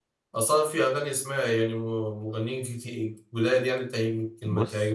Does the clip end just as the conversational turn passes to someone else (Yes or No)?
Yes